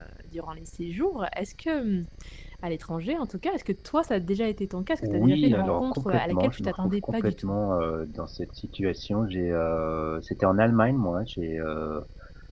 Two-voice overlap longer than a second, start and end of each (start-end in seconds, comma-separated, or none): 5.0-7.5